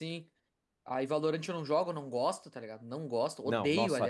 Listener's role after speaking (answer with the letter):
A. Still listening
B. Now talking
B